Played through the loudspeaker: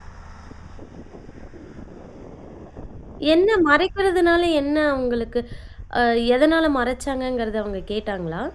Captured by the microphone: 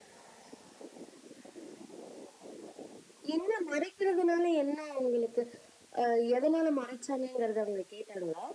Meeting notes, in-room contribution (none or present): none